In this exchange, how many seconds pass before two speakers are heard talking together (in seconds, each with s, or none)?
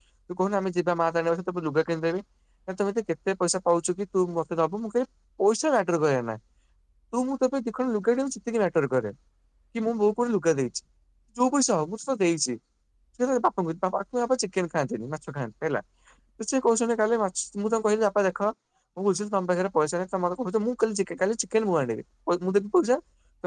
none